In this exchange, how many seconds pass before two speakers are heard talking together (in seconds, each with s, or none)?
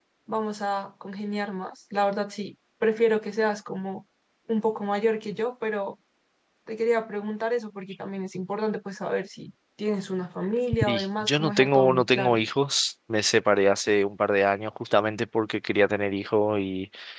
10.7 s